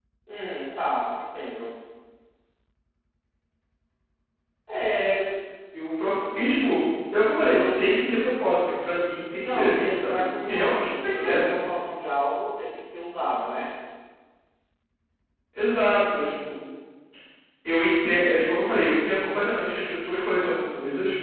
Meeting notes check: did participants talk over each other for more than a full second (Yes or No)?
Yes